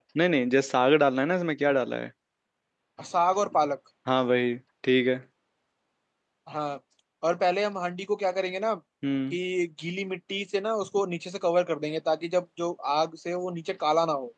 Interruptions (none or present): none